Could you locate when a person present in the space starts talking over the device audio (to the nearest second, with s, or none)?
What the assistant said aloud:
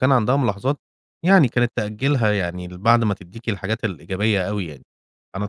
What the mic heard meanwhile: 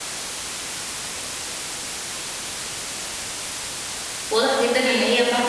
4 s